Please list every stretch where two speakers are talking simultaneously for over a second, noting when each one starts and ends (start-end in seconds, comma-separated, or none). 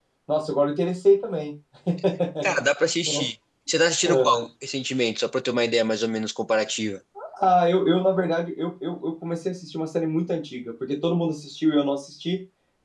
none